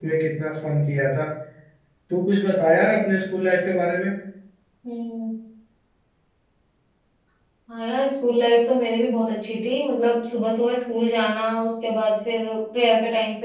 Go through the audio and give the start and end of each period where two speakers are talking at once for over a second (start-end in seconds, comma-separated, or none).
none